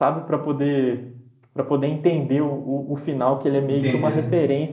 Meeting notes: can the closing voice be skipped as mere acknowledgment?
Yes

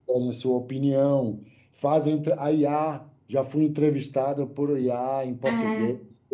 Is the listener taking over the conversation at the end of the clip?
Yes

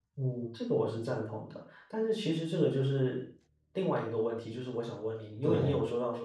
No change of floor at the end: Yes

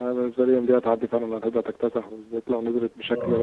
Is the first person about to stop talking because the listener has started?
No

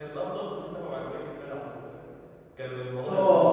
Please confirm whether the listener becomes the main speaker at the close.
Yes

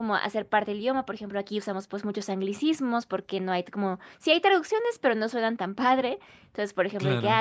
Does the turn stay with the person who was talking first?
Yes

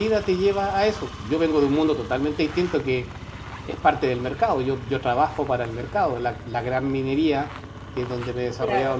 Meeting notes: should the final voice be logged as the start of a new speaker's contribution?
No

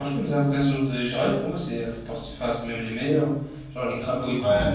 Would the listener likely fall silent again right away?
Yes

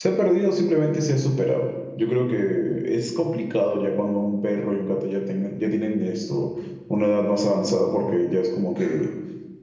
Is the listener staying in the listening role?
Yes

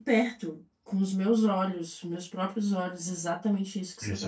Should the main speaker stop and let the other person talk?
No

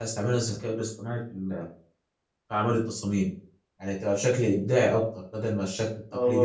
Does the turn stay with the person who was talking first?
No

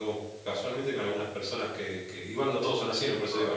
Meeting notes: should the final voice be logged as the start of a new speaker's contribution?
Yes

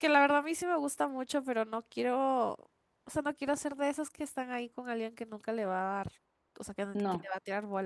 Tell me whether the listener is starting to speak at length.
No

